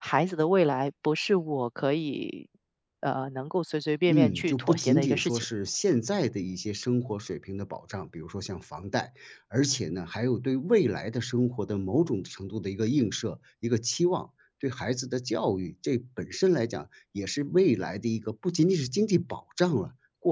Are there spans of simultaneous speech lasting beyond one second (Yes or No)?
Yes